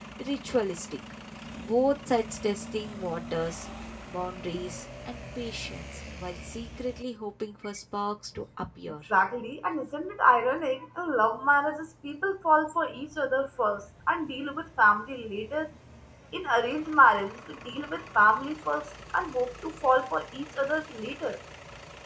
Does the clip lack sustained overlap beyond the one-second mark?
Yes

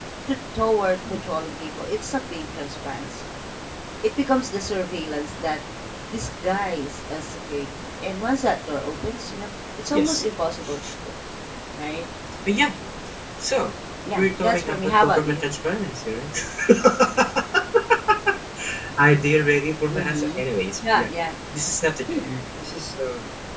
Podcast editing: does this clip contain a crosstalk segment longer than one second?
Yes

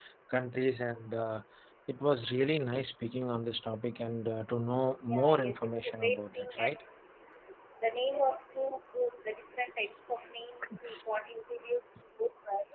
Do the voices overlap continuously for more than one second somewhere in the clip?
Yes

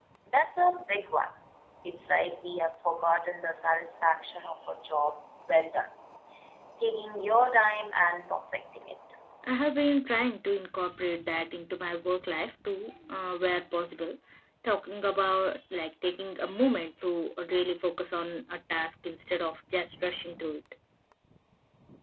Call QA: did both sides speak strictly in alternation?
Yes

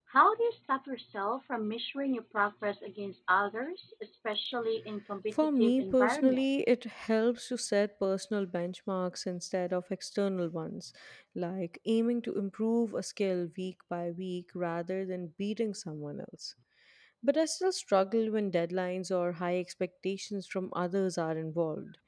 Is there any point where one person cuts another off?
Yes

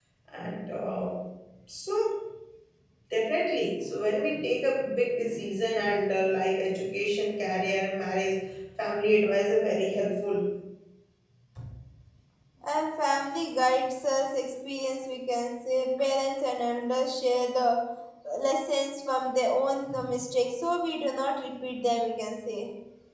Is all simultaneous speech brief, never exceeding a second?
Yes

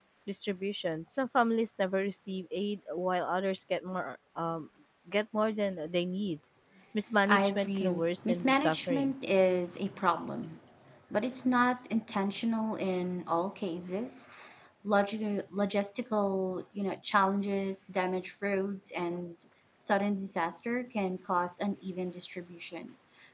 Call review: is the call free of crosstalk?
No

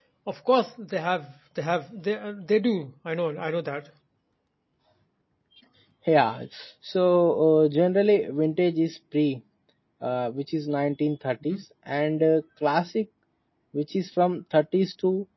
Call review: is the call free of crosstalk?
Yes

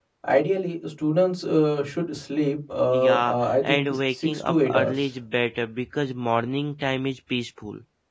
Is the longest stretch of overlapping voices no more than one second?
No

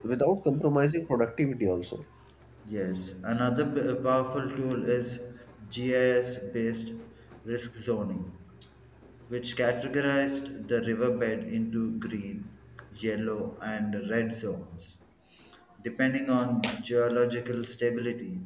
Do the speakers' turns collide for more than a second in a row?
No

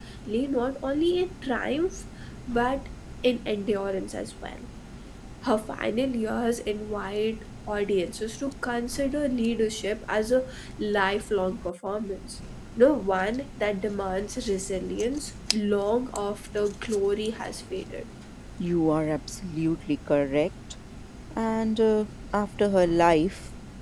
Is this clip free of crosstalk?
Yes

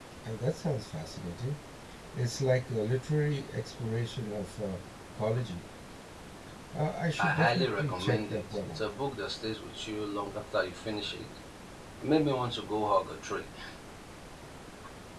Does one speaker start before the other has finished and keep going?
Yes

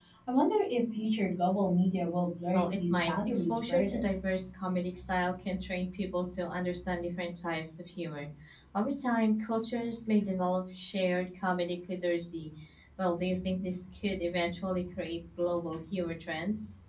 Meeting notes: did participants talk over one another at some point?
Yes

